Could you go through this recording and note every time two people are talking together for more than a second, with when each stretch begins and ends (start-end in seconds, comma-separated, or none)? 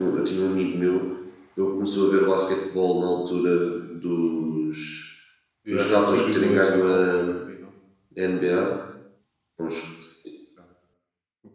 5.7-7.2